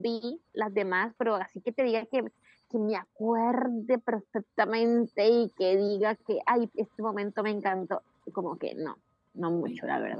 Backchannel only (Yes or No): No